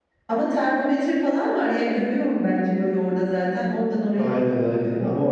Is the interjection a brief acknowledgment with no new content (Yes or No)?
No